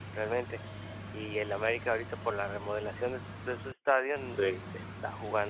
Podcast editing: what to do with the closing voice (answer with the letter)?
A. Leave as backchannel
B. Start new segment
A